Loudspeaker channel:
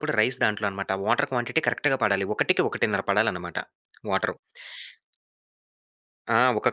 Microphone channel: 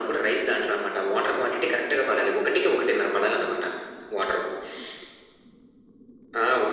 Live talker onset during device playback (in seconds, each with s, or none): none